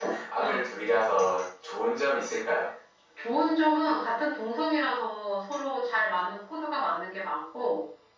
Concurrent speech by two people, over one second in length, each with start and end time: none

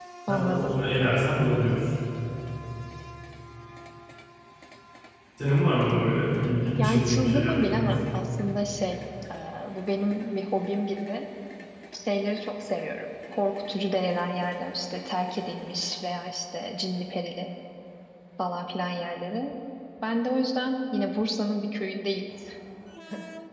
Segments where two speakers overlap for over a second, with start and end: 6.8-8.0

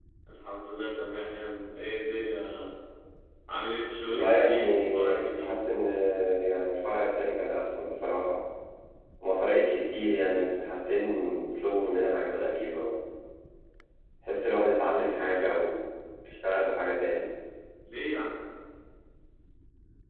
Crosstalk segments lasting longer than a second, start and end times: 4.1-5.5

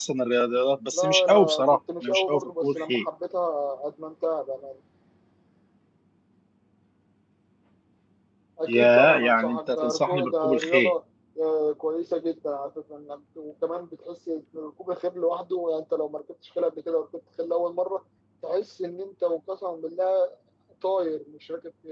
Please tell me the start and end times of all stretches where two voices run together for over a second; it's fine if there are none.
0.9-3.0, 8.7-10.9

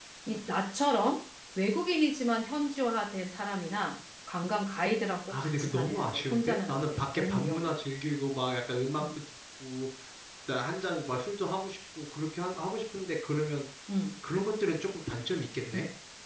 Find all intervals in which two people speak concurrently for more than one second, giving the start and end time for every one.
5.3-7.7

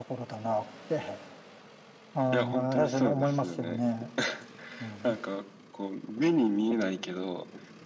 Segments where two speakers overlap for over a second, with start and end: 2.3-3.8

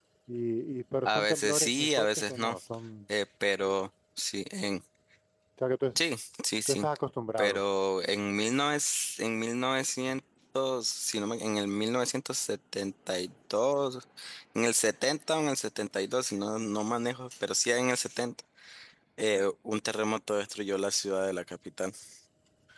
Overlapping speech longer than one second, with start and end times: 1.1-2.6

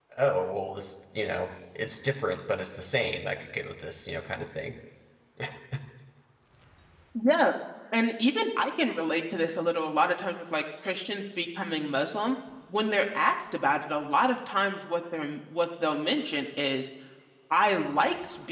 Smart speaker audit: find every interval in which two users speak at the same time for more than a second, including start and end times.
none

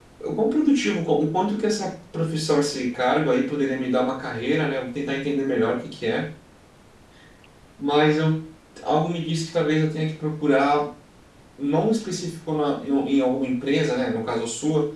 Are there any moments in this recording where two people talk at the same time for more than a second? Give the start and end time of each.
none

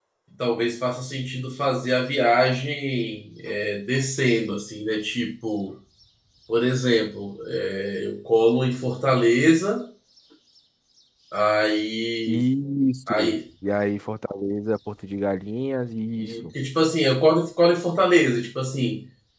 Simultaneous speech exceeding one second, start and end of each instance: none

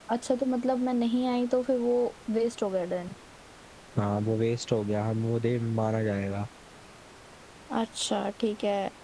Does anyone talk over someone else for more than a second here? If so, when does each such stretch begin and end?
none

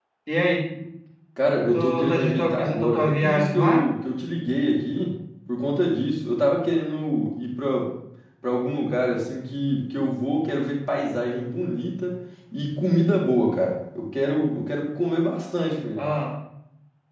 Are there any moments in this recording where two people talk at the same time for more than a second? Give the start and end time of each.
1.7-3.8

